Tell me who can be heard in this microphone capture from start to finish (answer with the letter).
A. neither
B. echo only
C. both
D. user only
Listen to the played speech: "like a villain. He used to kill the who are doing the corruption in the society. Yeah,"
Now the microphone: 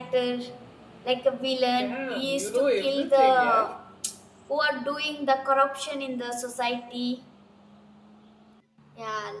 C